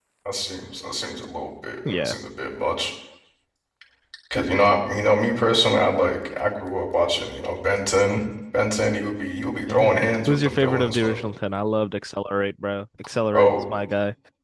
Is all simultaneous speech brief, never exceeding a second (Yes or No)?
No